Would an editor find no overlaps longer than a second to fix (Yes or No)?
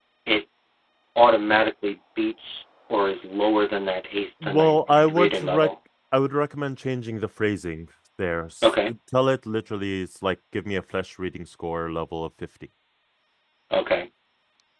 No